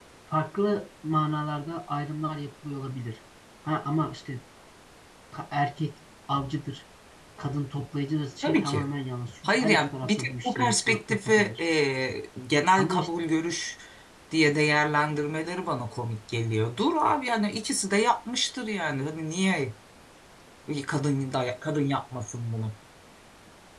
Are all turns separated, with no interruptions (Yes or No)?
No